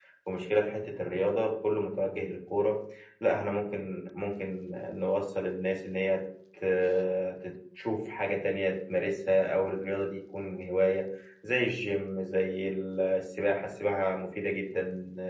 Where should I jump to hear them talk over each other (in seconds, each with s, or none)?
none